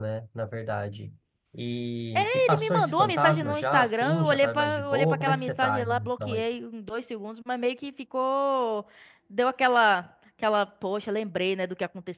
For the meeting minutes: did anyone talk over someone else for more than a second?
Yes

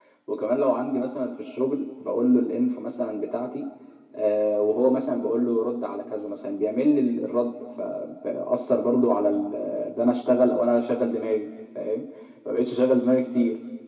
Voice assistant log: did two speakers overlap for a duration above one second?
No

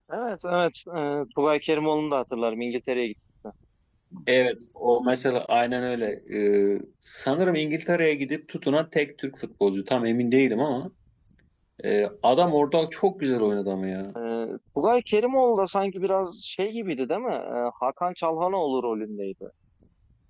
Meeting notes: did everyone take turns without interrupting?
Yes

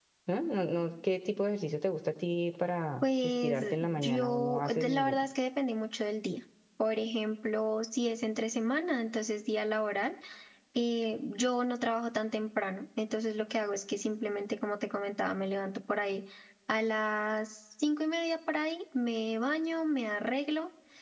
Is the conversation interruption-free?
No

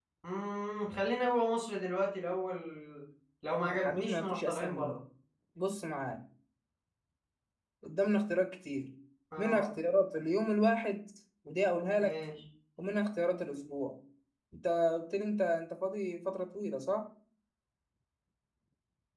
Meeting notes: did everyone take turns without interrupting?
No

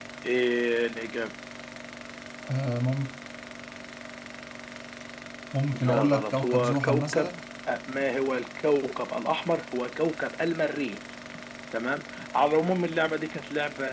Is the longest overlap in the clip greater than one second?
Yes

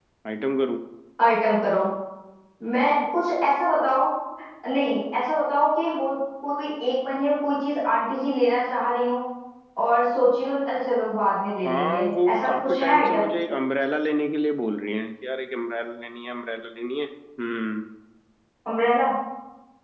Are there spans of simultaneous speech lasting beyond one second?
Yes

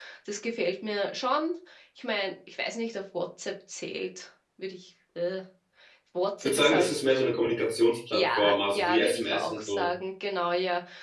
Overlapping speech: Yes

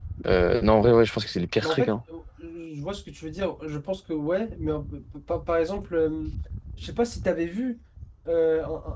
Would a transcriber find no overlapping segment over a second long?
Yes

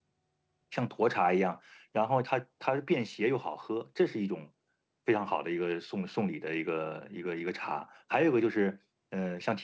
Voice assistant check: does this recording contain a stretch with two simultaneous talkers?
No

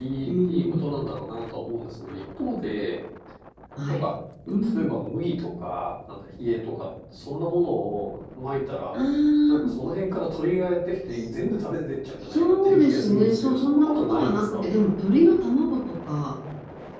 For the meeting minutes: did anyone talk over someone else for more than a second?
Yes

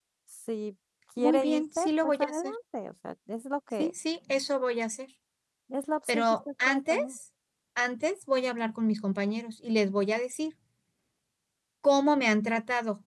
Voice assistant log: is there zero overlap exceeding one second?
No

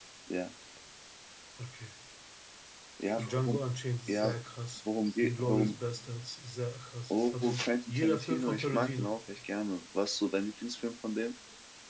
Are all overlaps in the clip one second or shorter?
No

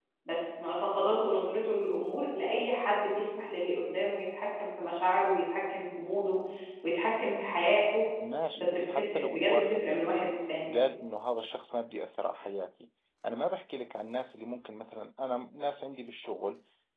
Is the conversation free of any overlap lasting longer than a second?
No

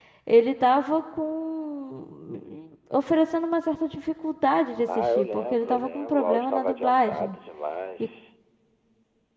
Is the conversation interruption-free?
No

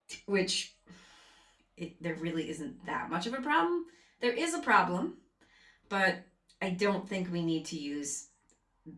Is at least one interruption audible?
No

